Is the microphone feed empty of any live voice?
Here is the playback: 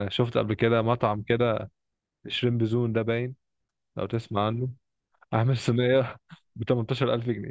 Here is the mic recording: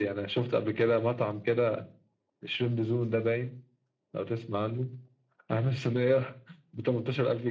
Yes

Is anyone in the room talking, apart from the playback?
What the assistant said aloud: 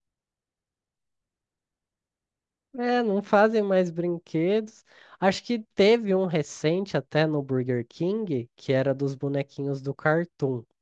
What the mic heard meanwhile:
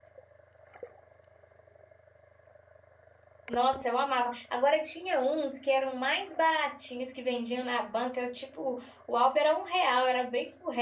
Yes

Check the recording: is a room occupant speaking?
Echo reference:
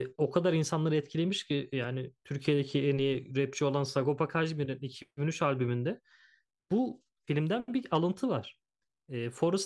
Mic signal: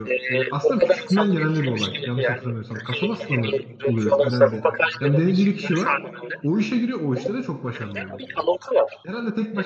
Yes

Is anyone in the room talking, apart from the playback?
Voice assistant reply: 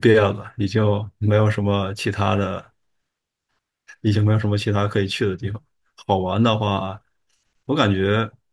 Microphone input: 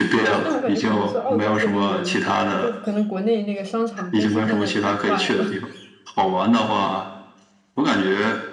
Yes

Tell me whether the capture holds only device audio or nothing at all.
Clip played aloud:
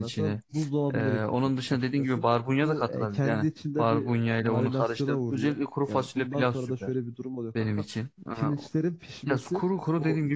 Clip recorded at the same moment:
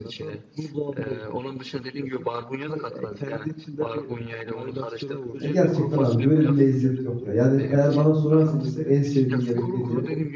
No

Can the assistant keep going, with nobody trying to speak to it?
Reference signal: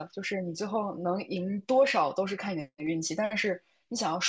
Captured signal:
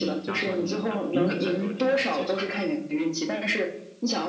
No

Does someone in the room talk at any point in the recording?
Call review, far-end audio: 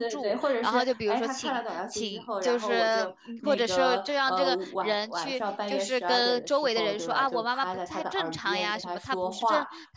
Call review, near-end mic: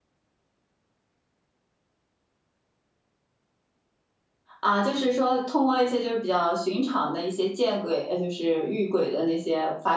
Yes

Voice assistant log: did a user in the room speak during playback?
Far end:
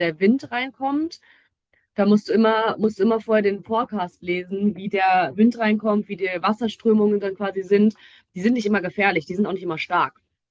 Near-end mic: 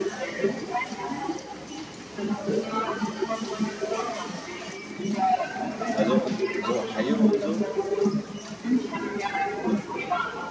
Yes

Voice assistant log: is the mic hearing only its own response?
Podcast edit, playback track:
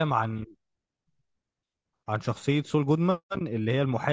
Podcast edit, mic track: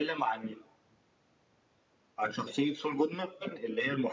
Yes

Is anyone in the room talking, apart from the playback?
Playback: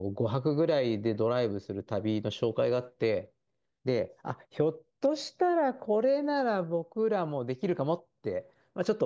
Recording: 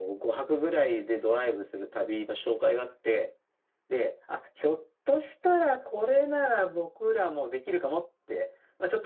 No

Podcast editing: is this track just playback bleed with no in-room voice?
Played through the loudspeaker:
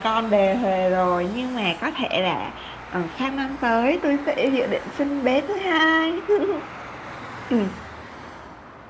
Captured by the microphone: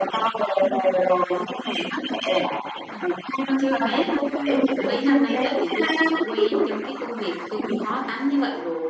No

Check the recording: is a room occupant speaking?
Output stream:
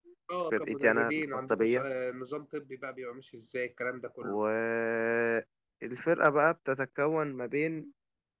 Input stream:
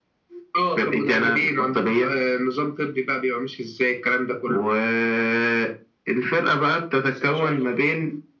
Yes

